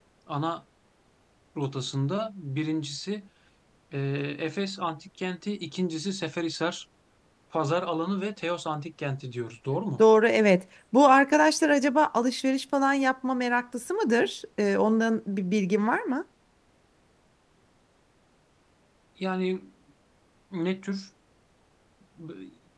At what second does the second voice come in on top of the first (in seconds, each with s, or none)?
none